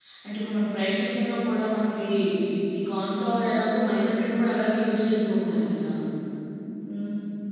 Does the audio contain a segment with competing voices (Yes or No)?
No